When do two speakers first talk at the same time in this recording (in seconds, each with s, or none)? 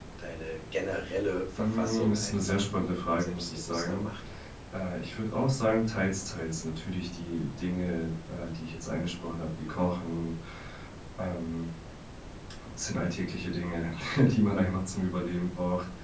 1.6 s